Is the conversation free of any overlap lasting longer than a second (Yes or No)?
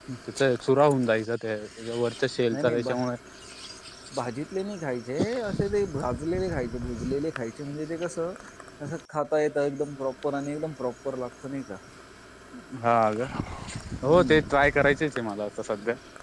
Yes